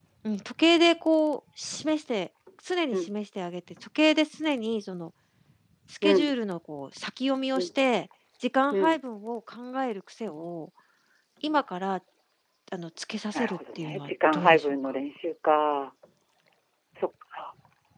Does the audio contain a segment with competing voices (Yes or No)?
Yes